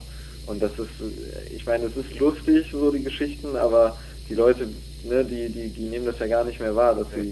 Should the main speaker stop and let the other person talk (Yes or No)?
No